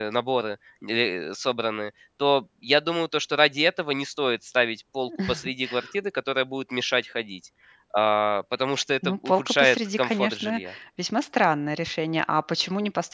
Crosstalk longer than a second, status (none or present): present